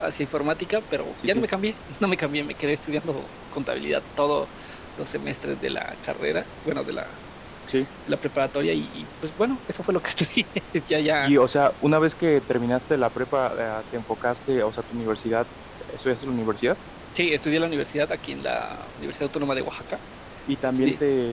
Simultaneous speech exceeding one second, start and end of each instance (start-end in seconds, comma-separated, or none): none